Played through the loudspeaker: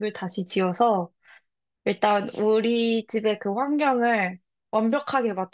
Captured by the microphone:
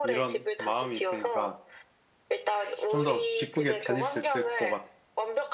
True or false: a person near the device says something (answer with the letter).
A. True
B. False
A